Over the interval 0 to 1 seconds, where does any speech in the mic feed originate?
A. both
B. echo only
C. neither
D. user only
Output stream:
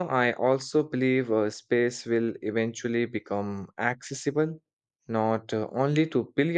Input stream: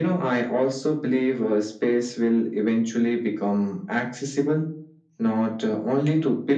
B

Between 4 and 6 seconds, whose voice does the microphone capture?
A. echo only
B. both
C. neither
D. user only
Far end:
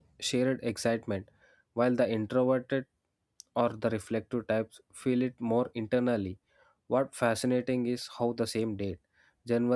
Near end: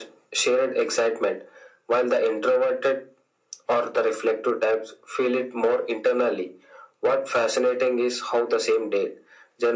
A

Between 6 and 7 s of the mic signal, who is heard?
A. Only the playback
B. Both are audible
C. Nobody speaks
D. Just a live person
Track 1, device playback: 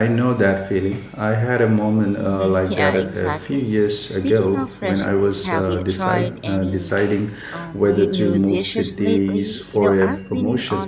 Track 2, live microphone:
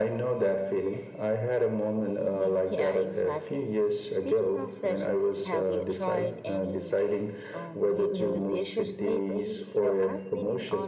A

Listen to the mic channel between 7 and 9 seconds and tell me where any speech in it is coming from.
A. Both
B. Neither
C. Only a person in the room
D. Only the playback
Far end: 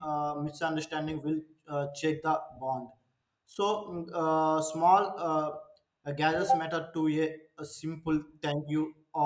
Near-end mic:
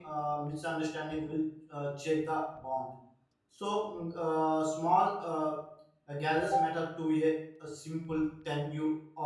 D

